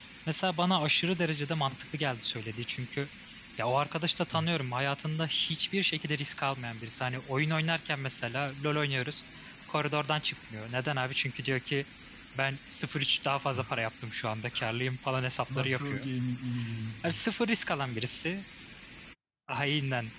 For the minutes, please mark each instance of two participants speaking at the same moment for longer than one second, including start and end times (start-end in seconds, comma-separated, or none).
none